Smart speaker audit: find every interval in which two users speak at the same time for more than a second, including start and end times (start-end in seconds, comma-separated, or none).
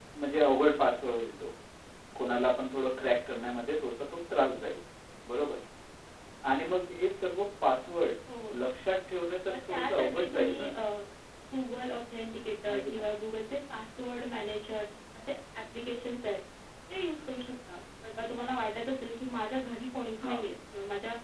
9.5-10.7